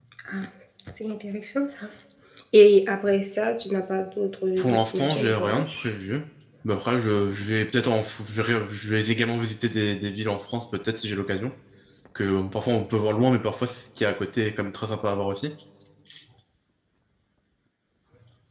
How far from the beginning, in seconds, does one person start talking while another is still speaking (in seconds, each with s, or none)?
4.6 s